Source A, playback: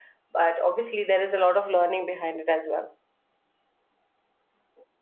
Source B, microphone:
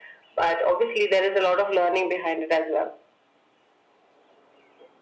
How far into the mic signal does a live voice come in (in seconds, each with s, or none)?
none